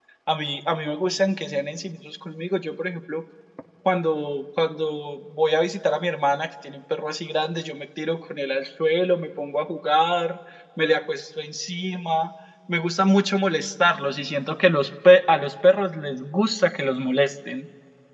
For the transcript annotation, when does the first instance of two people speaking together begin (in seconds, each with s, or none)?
none